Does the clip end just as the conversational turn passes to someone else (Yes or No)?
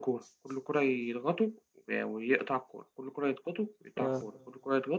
No